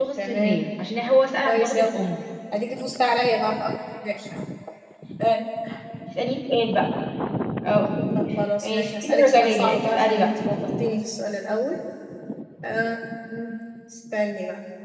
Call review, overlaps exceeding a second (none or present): present